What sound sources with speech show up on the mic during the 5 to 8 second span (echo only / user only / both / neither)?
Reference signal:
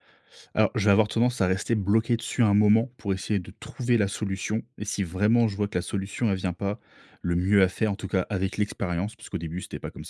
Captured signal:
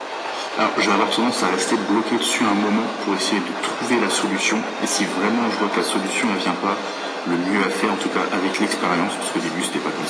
echo only